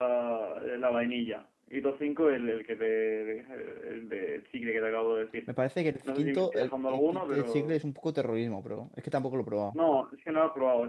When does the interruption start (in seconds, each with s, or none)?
6.1 s